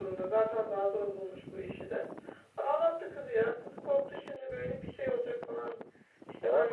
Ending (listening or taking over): listening